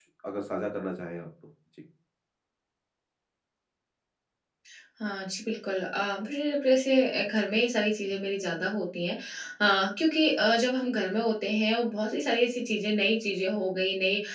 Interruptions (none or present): none